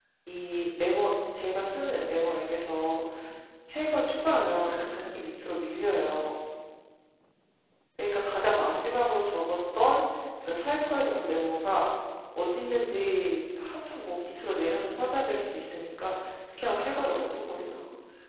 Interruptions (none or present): present